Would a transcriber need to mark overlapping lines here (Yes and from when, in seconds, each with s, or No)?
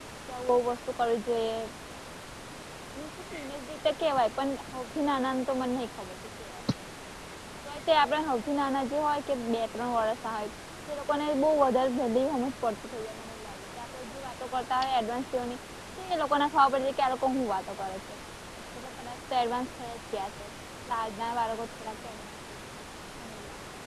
No